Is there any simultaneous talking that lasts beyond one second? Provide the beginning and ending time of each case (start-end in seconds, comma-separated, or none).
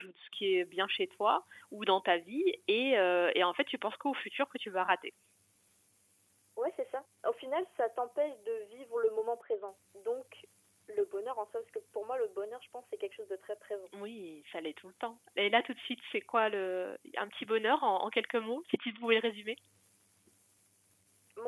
none